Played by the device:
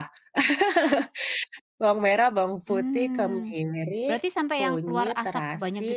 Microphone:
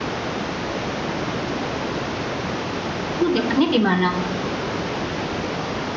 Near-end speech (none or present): present